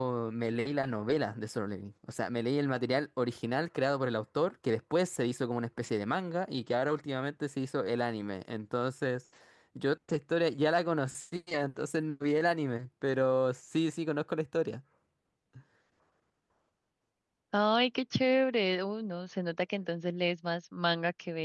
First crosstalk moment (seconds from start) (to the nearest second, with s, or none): none